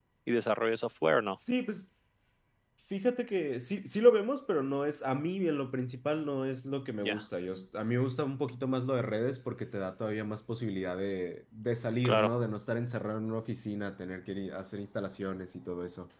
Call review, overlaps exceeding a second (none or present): none